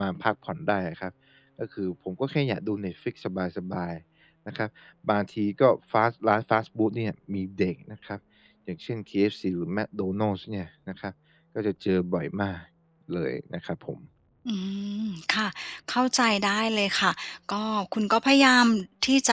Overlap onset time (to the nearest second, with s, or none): none